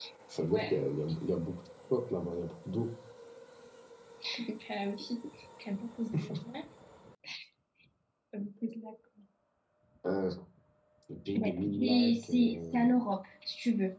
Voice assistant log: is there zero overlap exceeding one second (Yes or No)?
No